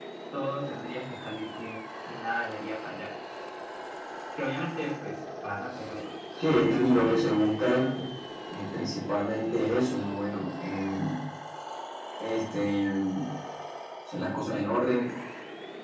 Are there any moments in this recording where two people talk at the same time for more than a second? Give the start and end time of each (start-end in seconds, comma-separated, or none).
6.5-7.8